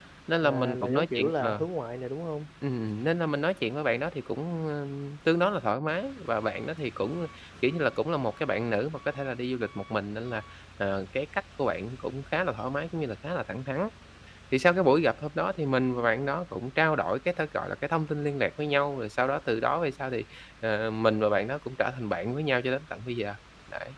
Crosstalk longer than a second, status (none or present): present